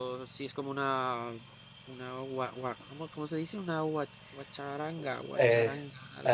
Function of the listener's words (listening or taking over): taking over